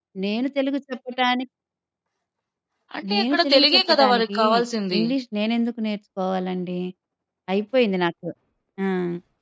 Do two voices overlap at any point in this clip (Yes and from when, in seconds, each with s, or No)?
Yes, from 3.1 s